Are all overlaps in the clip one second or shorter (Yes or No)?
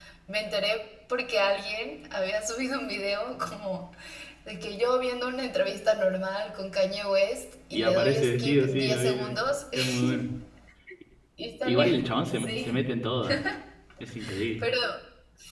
No